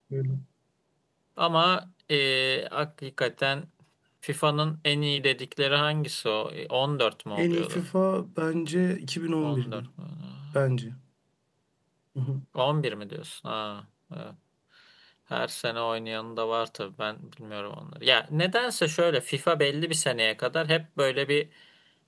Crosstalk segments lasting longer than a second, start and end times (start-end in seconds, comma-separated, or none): none